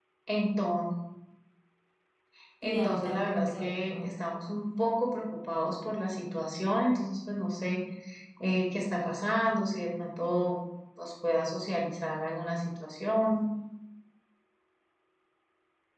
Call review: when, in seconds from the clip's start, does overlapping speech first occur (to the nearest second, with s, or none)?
3 s